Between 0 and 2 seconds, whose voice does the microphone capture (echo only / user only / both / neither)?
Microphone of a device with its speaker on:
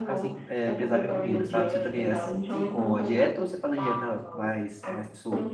both